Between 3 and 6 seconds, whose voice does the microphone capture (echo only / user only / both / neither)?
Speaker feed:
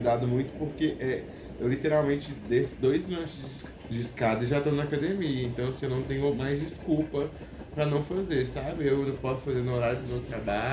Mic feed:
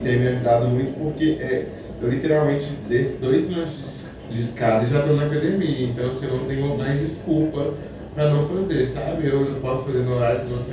echo only